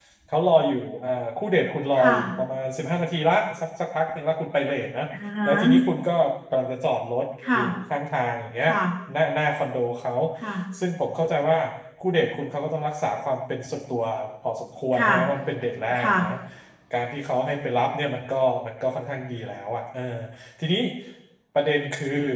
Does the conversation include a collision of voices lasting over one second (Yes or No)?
No